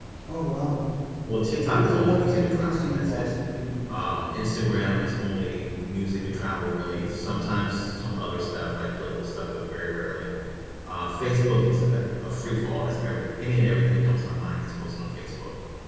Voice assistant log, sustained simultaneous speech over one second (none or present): present